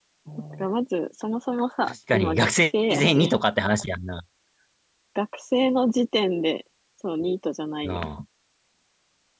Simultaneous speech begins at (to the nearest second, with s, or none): 2 s